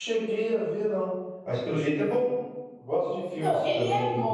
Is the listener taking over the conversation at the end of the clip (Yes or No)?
Yes